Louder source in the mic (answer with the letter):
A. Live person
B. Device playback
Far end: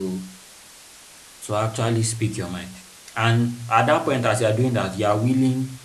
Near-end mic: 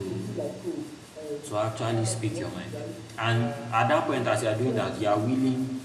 B